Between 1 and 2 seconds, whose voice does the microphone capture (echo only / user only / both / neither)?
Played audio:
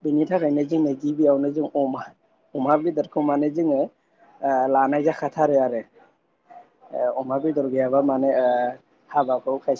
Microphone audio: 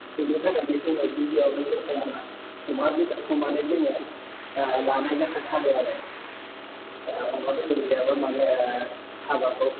echo only